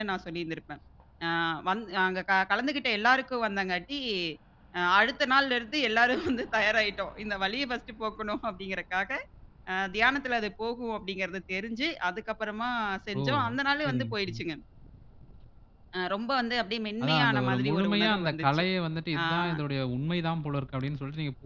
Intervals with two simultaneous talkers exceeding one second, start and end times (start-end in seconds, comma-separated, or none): 17.0-18.6